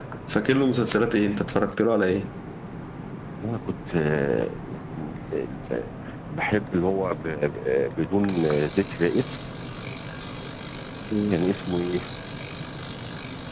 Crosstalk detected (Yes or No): No